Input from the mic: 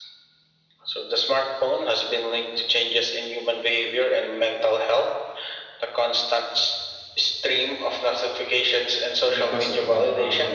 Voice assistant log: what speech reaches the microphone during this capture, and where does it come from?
both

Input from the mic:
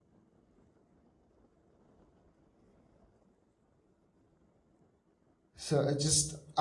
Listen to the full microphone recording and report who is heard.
user only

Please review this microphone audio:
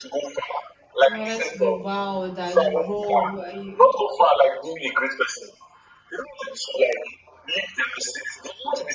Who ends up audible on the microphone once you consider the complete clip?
both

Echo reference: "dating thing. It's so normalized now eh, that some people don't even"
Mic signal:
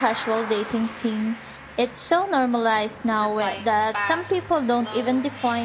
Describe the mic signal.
both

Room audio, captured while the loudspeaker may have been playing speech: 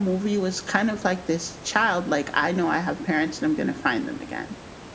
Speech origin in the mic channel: echo only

